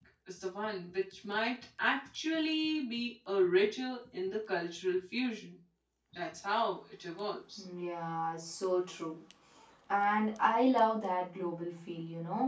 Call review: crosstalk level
none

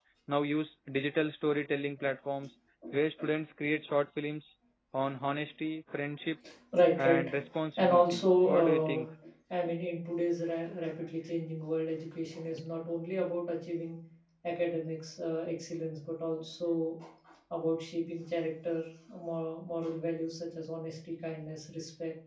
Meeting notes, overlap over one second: present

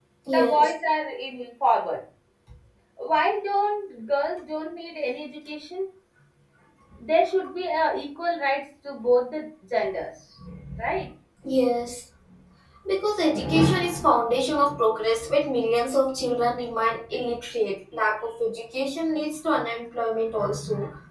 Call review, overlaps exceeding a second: none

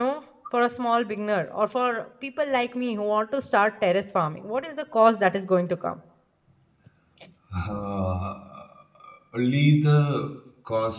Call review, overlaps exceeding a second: none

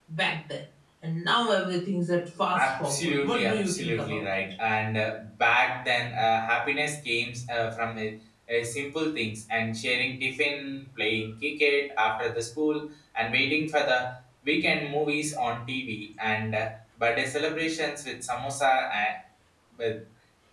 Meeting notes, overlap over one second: present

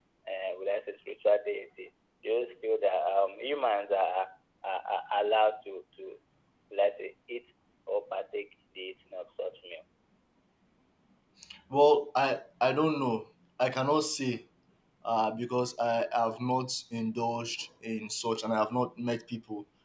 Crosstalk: none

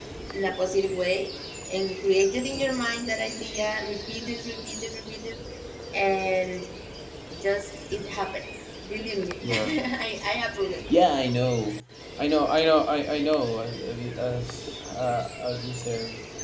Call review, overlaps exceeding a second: none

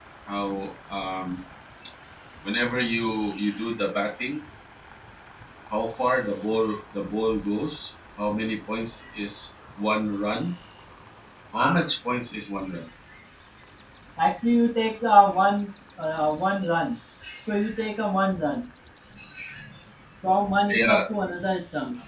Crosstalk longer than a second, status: none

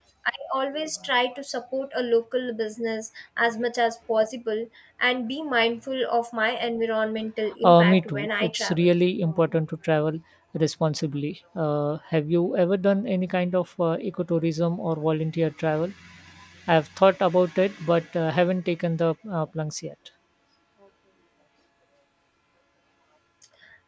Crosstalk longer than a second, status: present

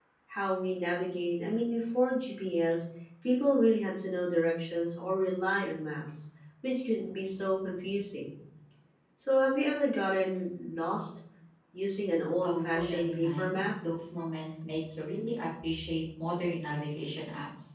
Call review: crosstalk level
present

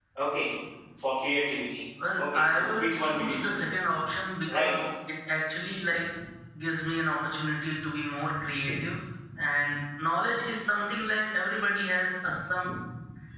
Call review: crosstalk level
present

